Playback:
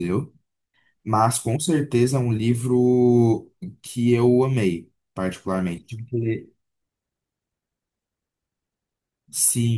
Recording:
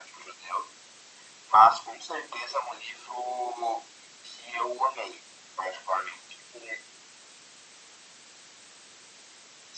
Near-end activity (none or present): none